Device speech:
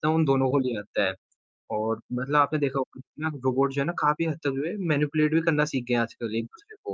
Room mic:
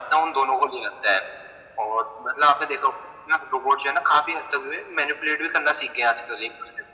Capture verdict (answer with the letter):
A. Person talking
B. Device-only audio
B